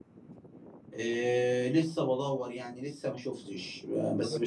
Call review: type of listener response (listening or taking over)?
listening